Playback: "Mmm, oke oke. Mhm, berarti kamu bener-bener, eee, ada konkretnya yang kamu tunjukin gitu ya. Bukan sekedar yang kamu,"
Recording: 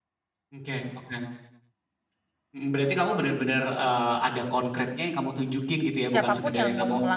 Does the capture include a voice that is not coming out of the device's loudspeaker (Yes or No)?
Yes